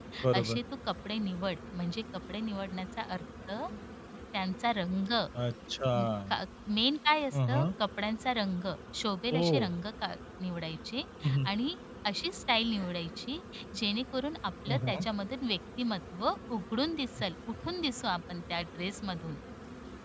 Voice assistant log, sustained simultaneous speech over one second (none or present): none